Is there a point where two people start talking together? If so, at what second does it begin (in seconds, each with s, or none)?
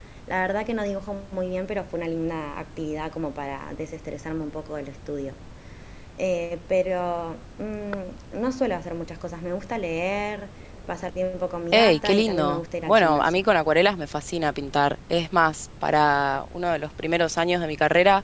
11.7 s